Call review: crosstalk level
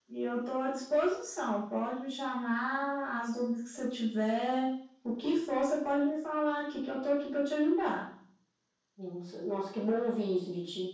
none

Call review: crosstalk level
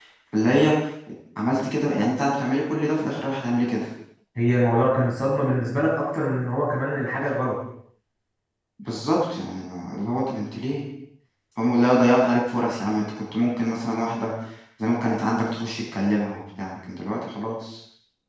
none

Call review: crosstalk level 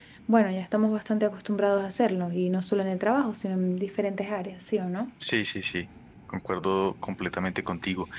none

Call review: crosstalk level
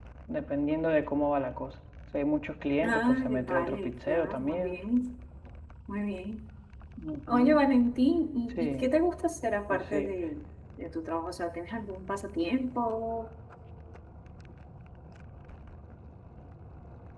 present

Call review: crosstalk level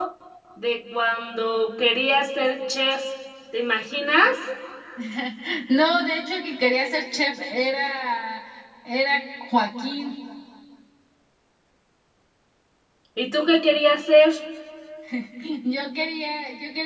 none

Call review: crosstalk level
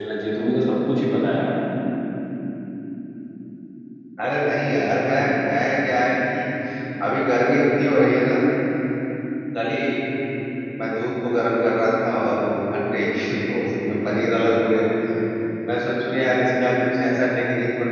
none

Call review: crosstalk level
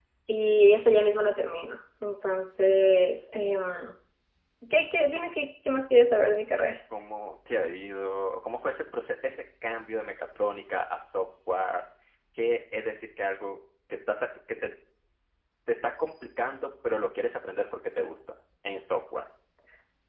none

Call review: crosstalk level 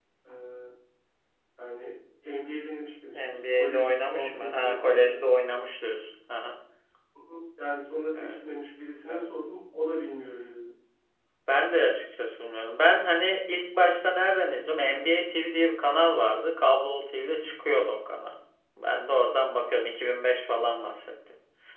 present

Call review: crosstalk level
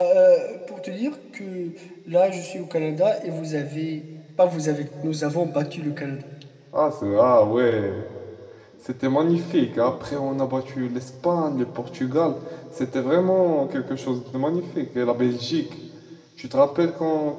none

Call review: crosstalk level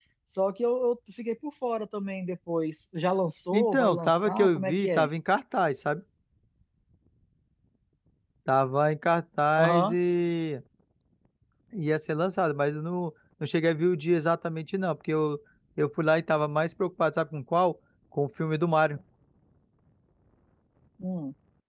present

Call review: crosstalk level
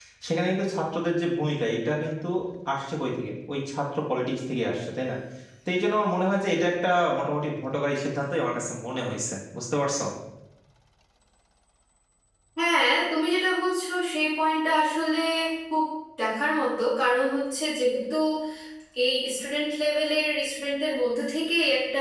none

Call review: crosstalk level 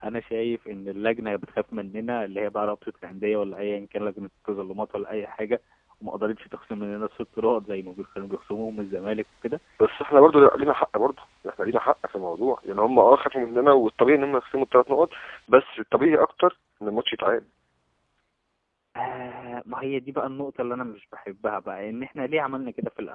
none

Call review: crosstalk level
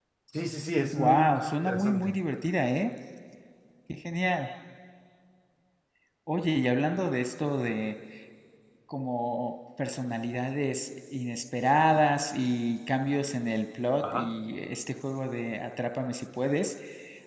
present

